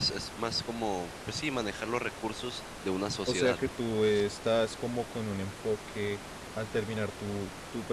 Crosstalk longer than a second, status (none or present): none